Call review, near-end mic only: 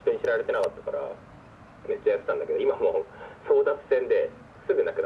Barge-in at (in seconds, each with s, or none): none